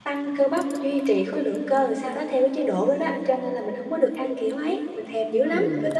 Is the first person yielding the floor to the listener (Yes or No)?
Yes